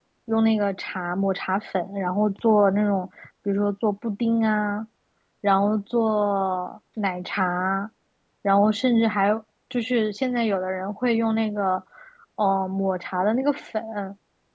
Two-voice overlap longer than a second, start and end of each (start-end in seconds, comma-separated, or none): none